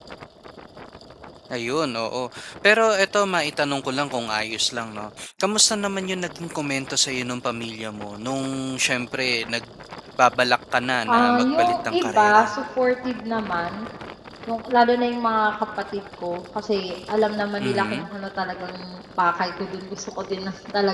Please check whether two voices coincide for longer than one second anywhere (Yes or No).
Yes